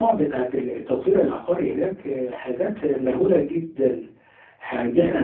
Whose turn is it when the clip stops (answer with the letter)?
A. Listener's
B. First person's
A